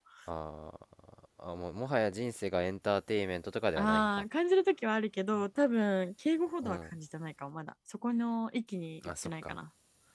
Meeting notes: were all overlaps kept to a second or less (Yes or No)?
Yes